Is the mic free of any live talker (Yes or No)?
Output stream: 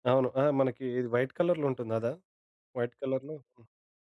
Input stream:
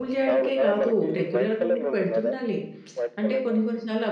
No